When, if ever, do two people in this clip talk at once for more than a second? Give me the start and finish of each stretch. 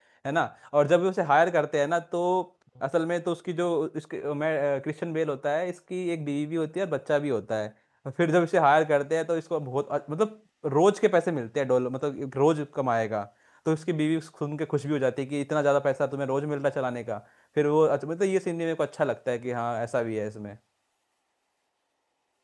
none

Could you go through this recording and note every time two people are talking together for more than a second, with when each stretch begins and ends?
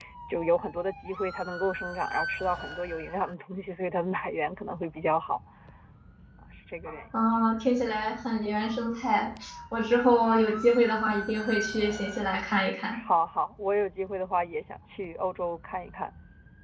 none

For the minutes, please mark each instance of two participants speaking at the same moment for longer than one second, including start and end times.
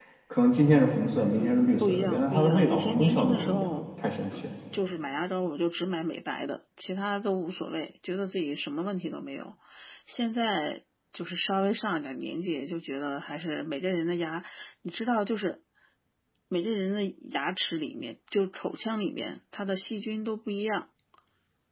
1.3-3.7

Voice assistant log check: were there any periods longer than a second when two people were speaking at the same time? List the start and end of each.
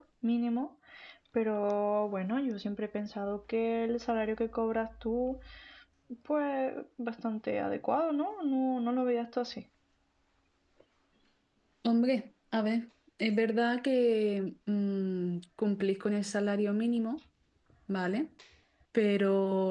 none

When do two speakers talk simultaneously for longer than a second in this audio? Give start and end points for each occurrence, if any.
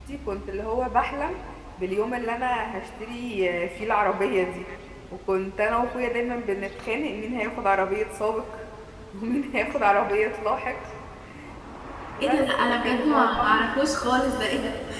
12.2-13.6

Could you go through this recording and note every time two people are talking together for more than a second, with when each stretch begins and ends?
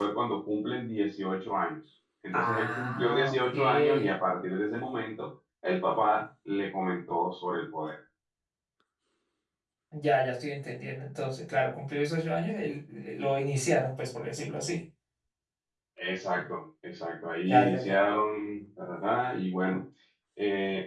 2.3-4.1

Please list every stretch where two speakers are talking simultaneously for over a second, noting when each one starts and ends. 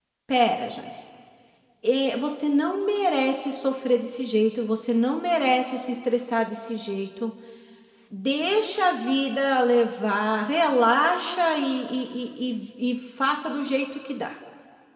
none

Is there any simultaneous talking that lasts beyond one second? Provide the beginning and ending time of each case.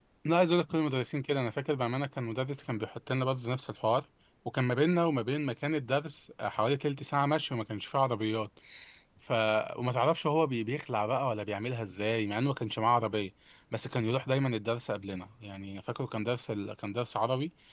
none

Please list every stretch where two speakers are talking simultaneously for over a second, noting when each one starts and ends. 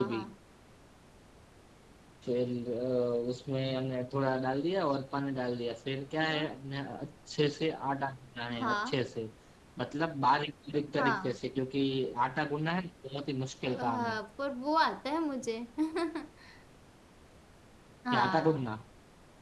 none

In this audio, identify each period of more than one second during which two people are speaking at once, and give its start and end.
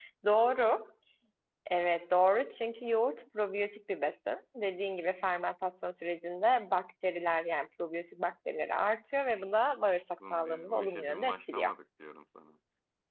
10.3-11.7

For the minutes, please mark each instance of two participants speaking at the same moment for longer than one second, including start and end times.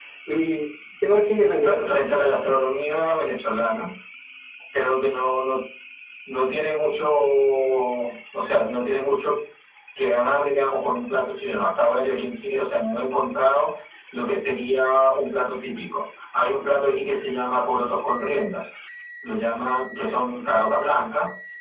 none

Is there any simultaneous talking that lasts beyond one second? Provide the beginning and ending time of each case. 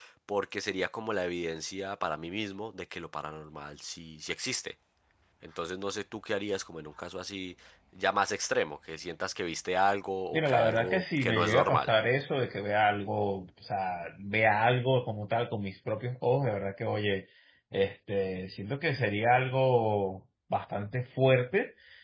10.3-11.9

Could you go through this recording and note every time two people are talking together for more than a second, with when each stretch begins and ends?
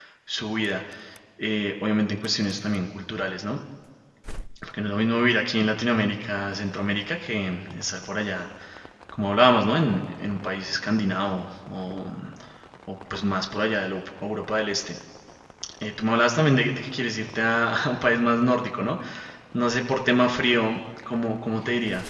none

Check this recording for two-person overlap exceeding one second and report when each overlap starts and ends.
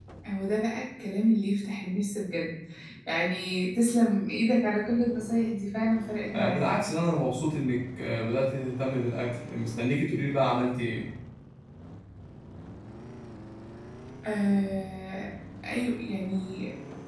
none

